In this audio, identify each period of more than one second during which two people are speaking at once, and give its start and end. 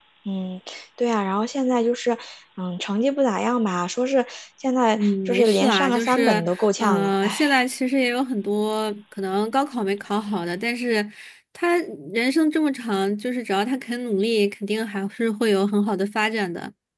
4.9-7.5

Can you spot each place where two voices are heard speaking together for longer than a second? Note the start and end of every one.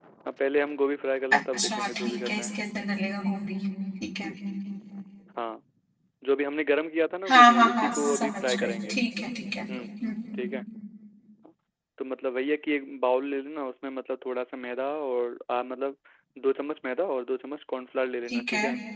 1.3-2.5, 7.3-8.9

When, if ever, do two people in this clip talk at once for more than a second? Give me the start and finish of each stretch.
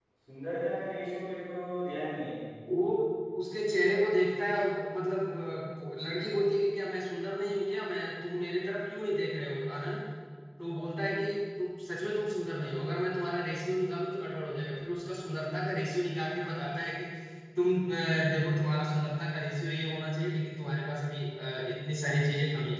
none

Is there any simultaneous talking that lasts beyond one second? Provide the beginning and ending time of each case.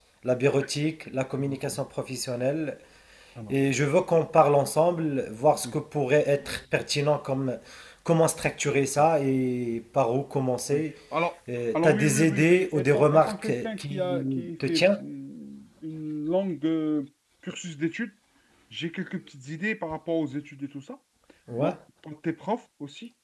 11.7-15.0

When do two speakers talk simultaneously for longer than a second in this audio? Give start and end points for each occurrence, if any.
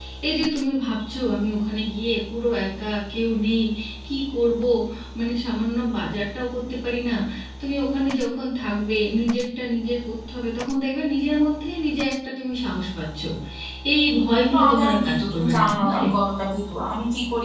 14.5-16.1

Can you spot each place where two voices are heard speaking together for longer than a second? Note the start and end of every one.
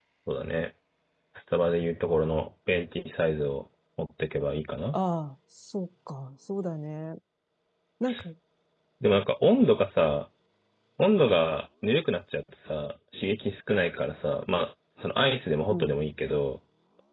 none

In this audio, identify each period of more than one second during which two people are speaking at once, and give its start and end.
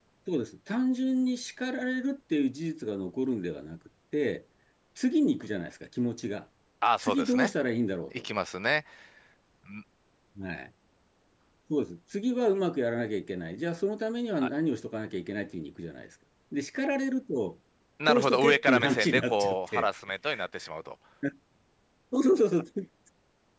18.1-19.9

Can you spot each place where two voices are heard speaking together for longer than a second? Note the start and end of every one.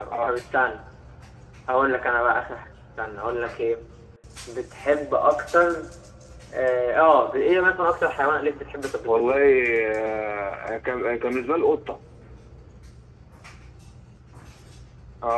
none

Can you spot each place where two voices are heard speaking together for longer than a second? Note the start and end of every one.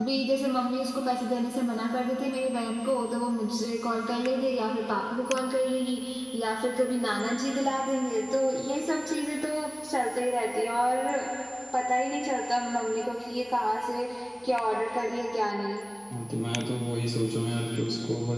none

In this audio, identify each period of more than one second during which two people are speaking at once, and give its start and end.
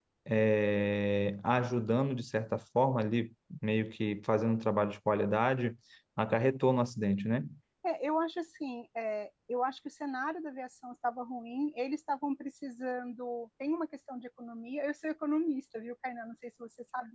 none

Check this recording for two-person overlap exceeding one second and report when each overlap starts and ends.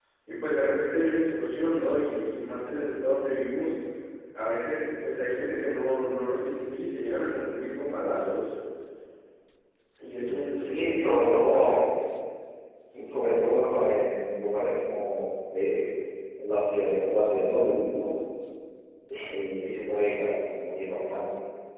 10.2-11.8

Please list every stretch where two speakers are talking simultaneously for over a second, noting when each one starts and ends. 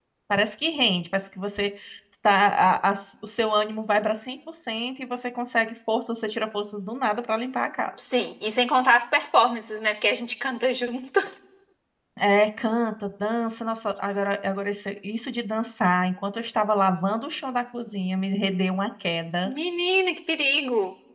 none

